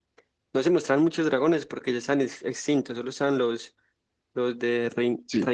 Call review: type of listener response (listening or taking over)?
listening